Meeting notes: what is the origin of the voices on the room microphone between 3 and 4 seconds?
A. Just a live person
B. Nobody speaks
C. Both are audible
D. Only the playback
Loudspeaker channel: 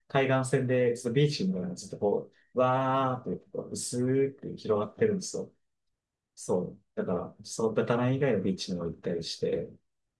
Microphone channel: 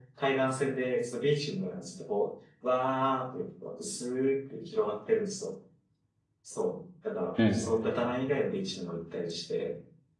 D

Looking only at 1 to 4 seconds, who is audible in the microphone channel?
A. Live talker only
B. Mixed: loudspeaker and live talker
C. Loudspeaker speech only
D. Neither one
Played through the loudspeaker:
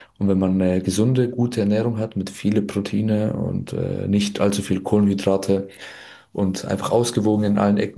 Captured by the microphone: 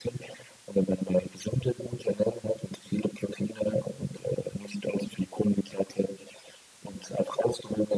C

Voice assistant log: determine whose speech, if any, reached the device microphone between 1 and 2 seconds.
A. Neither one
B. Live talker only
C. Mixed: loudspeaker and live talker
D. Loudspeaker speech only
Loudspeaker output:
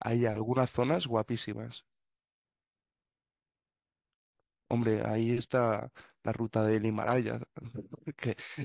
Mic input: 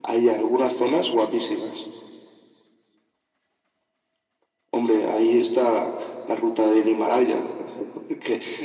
D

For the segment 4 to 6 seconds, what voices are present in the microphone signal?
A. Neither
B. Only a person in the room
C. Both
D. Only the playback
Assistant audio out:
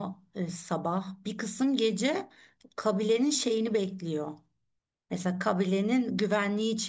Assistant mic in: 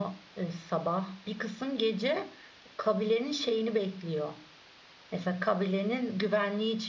D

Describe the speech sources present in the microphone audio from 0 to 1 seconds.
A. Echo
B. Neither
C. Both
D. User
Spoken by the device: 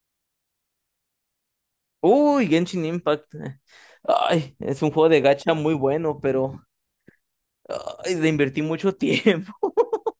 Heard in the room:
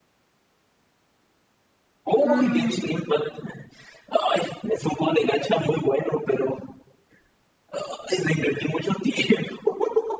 B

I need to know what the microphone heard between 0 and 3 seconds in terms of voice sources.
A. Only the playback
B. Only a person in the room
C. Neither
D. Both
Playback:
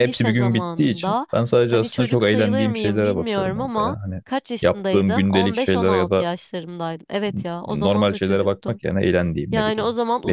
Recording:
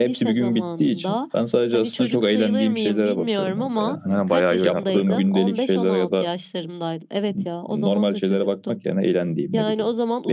A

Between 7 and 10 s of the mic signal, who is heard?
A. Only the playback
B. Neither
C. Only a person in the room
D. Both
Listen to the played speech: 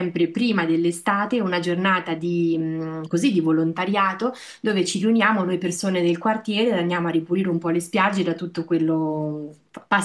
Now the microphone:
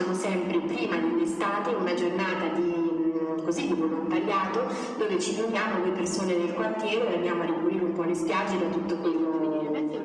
D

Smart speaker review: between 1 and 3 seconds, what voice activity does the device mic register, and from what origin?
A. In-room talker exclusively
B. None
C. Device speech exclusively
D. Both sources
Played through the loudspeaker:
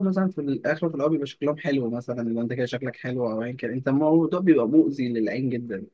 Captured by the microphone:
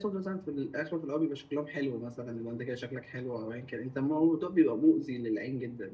C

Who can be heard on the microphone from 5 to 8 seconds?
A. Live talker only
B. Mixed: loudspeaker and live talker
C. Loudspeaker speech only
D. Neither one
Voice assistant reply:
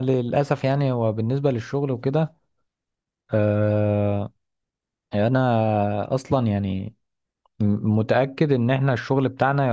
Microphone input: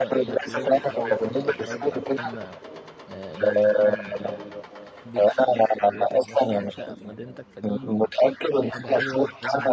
B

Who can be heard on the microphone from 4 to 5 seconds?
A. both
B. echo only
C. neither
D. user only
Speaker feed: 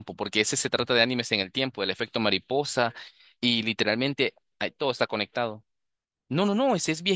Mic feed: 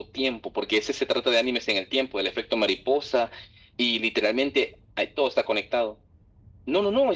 B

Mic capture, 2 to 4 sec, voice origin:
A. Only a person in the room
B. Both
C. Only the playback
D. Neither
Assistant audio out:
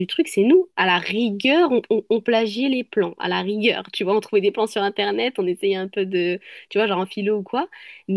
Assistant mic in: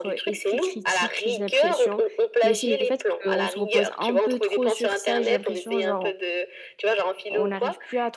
B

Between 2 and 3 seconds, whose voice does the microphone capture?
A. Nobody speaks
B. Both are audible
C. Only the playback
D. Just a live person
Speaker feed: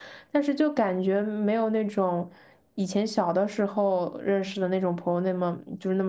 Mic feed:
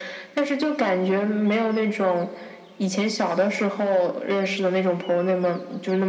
C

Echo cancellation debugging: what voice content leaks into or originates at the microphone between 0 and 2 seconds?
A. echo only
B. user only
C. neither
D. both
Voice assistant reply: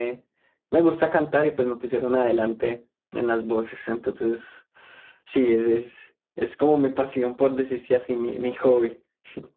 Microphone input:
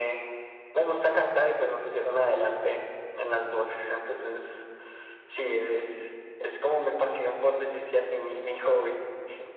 A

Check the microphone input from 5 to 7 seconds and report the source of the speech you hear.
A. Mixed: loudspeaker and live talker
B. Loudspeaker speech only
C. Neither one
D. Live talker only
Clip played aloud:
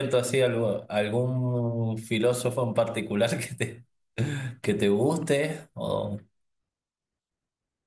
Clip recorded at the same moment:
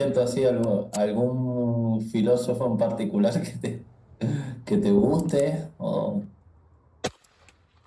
B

